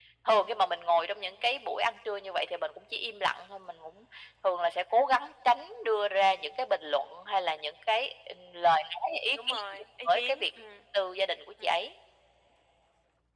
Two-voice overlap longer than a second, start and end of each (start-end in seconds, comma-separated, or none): none